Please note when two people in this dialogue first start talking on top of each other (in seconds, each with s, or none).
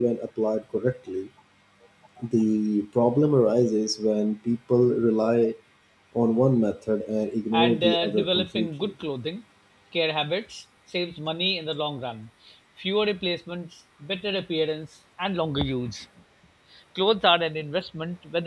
7.5 s